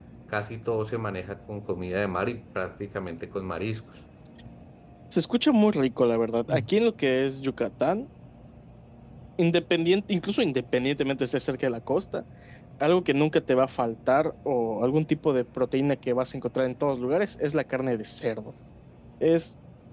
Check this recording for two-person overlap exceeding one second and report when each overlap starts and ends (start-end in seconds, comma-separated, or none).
none